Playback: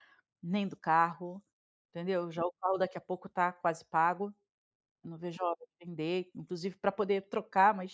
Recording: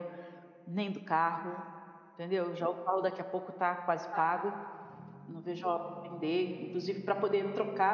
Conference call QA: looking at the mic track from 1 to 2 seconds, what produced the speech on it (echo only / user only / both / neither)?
echo only